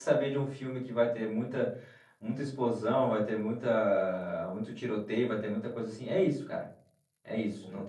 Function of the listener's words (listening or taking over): listening